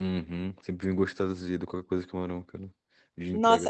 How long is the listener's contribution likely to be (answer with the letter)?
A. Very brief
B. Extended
B